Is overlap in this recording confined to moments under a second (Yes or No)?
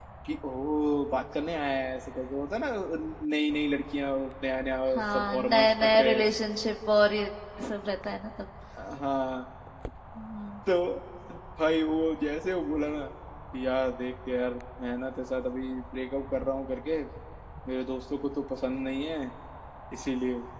No